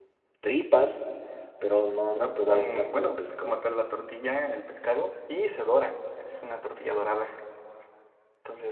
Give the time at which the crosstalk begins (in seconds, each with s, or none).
2.1 s